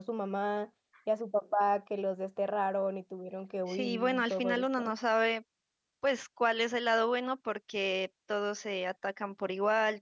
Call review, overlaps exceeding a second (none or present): present